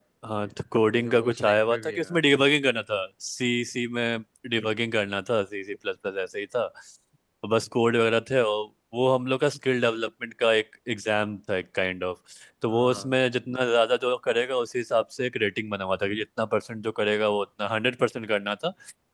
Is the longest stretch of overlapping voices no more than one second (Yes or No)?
No